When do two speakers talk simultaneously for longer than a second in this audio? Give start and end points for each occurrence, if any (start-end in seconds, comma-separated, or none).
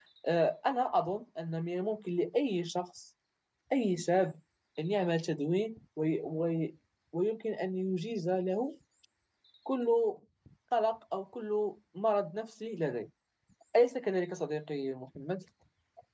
none